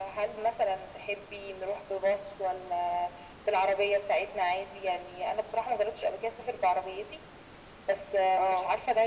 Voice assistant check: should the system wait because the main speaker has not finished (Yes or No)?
Yes